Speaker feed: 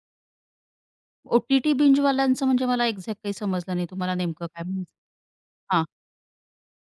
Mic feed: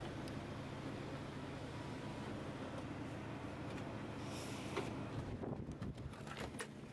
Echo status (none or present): none